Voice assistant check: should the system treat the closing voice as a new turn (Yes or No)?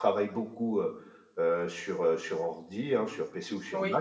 No